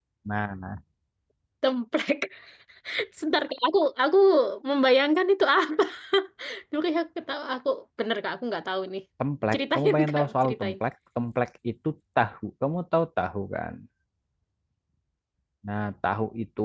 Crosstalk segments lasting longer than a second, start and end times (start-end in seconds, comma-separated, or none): 9.5-10.7